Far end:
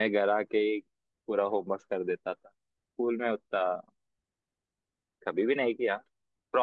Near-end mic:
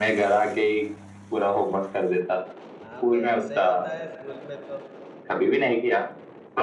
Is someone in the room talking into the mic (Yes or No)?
Yes